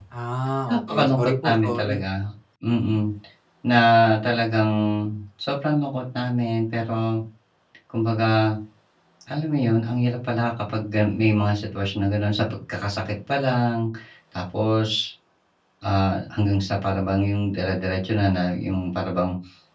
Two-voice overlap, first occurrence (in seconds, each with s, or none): 0.7 s